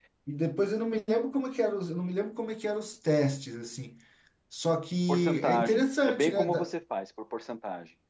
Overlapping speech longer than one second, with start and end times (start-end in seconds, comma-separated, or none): 5.1-6.7